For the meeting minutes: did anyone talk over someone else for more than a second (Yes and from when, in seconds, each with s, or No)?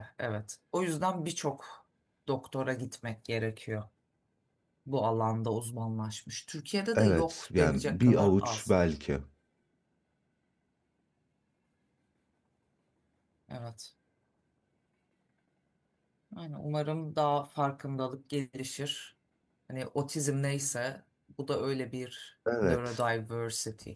Yes, from 7.0 s